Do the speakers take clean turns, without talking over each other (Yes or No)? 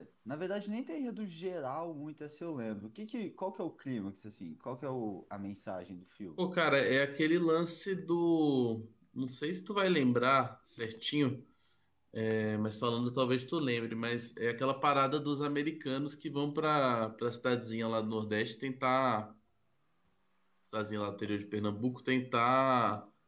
Yes